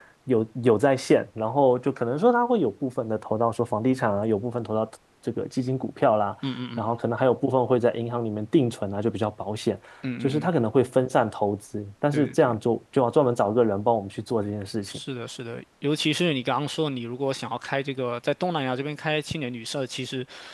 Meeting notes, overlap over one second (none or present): none